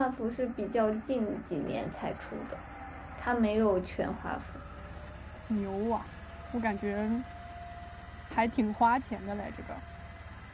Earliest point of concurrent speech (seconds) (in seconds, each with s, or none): none